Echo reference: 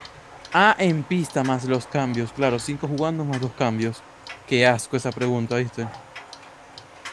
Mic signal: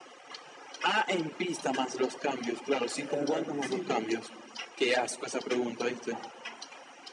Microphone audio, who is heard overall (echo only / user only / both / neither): both